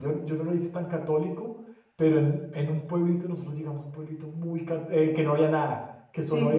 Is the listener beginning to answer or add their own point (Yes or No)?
No